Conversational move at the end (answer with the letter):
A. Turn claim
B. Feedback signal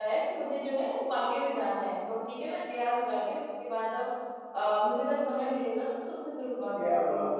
A